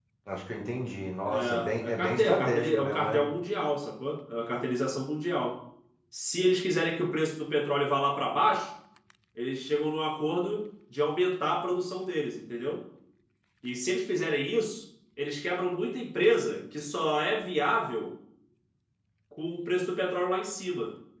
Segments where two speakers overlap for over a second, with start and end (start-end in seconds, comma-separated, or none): 1.2-3.2